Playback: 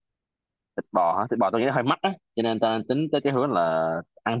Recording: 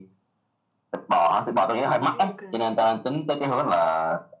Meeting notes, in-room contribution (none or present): present